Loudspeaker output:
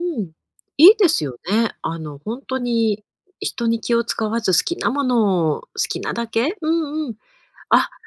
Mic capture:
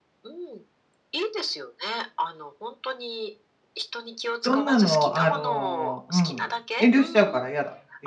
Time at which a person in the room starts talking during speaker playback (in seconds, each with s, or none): 4.4 s